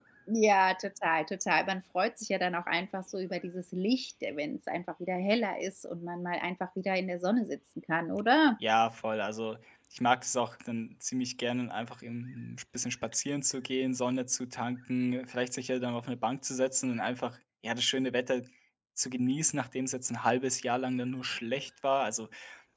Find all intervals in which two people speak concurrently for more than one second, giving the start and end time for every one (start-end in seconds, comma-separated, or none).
none